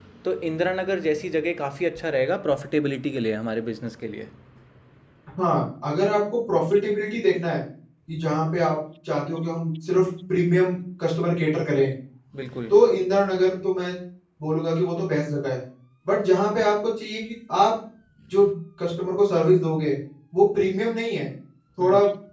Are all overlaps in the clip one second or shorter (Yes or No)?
Yes